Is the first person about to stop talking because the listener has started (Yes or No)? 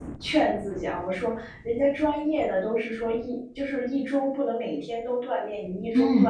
No